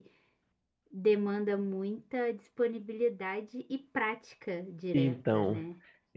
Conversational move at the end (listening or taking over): taking over